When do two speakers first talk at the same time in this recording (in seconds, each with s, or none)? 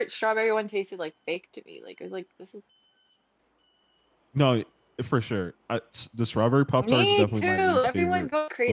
6.8 s